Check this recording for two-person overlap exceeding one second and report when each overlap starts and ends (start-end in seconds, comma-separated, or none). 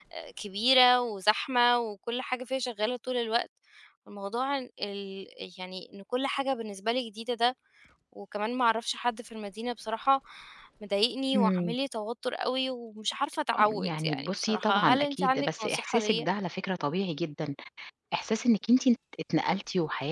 13.5-16.3